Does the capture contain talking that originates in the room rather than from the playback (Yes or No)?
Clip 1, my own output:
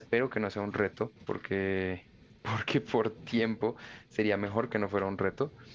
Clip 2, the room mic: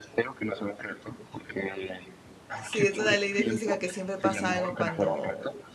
Yes